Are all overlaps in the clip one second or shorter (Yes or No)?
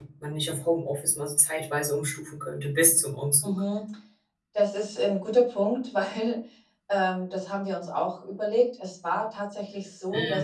Yes